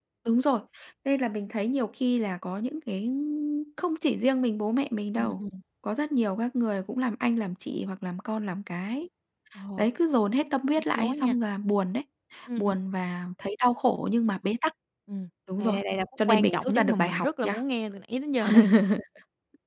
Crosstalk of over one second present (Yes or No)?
Yes